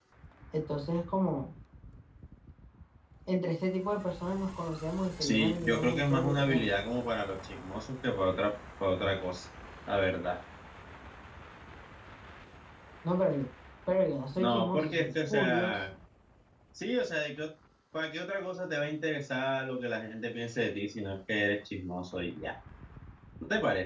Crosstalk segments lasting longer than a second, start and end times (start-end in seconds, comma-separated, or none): 5.2-6.7, 14.3-15.7